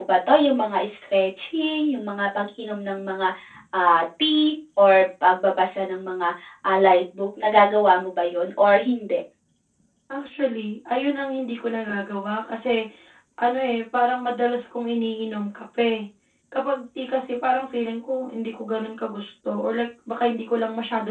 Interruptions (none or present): none